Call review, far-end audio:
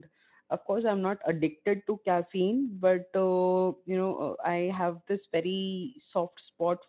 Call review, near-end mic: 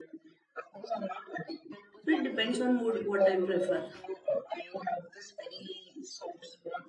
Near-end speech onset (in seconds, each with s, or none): 2.0 s